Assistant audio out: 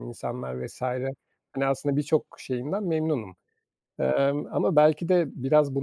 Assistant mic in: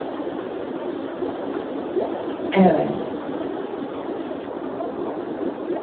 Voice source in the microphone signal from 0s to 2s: neither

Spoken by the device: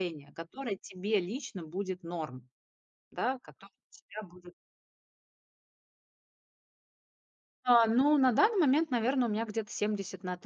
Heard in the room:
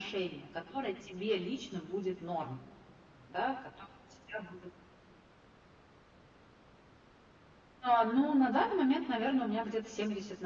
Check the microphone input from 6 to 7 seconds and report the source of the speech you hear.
neither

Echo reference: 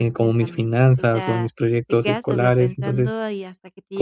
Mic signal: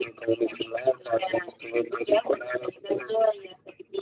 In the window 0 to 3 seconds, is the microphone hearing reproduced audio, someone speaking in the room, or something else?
echo only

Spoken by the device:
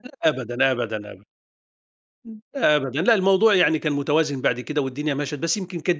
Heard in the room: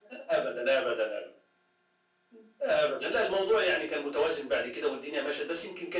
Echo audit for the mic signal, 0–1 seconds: echo only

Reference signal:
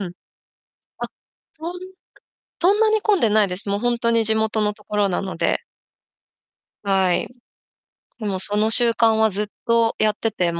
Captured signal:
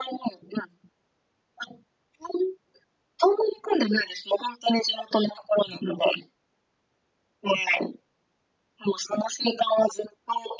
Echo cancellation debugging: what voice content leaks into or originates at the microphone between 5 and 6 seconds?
echo only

